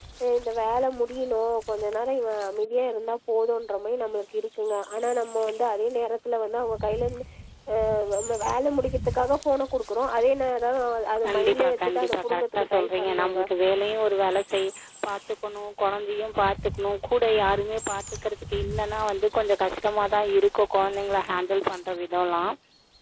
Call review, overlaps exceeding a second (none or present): present